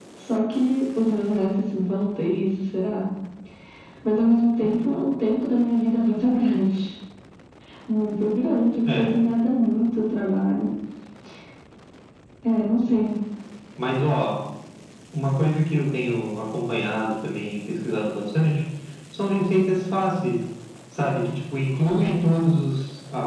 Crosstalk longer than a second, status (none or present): none